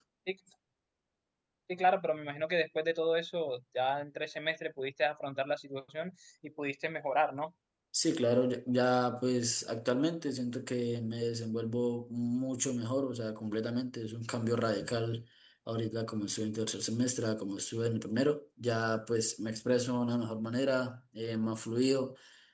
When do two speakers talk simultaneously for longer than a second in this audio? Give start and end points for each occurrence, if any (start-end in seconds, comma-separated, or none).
none